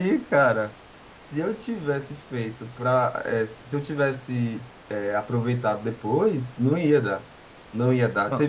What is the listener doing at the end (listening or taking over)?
listening